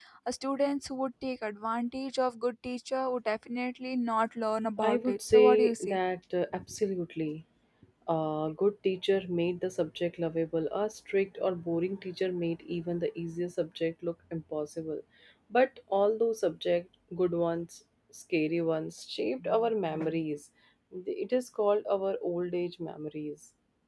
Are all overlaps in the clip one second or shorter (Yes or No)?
No